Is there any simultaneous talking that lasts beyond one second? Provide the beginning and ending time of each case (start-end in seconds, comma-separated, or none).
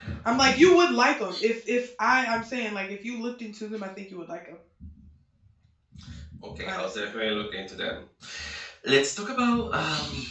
none